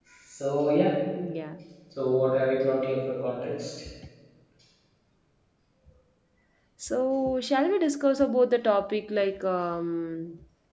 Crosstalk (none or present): none